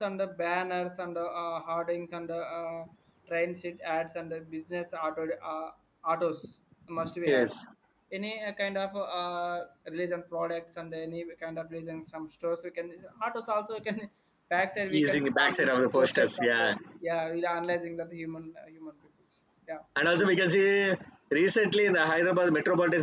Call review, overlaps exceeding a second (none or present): present